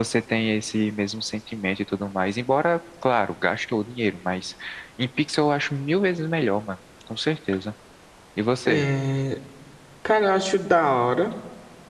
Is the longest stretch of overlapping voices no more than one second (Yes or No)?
Yes